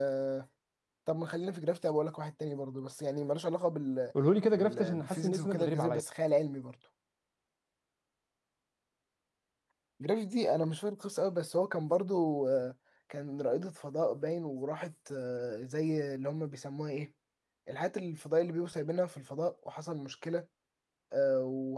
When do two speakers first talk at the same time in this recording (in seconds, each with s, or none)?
4.5 s